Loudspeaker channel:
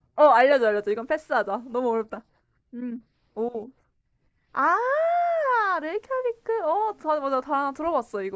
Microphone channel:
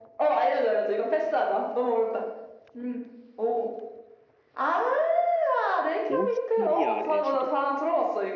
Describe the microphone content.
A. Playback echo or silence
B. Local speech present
B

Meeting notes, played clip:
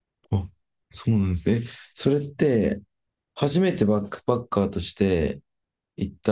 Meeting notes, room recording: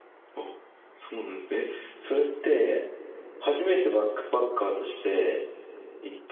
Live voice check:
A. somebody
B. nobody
B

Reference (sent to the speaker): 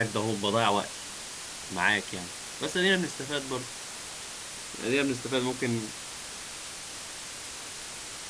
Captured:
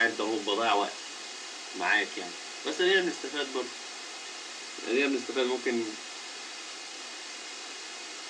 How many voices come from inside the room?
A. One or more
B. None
B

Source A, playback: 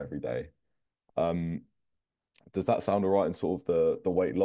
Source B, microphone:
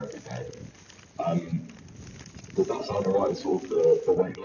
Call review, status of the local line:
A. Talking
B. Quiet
B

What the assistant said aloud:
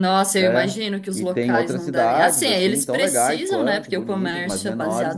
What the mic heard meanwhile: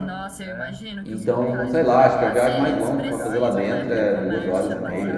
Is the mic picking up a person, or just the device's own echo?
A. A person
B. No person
A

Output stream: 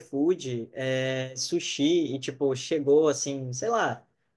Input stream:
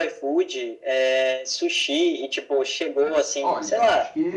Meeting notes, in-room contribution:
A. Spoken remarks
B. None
A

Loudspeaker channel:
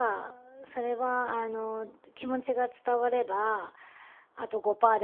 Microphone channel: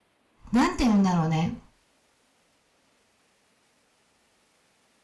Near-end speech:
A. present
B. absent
A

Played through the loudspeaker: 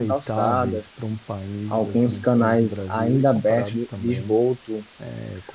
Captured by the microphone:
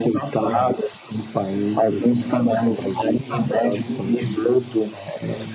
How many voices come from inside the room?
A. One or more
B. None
A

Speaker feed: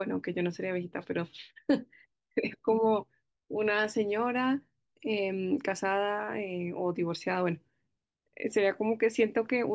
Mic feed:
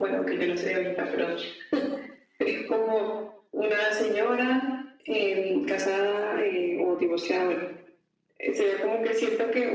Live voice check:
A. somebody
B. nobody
B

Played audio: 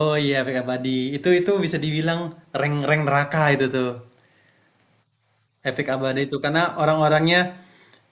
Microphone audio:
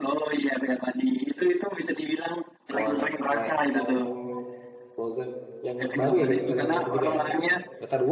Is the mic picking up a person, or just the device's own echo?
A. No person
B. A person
B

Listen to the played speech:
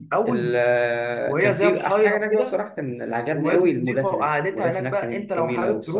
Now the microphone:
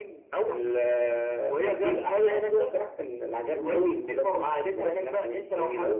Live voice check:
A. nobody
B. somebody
A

